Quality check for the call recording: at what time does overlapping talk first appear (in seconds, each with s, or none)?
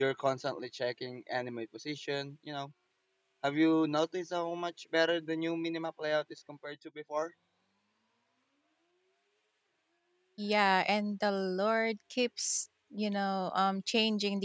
none